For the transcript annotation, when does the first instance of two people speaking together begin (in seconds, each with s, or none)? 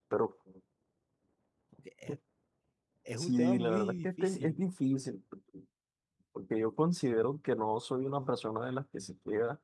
3.2 s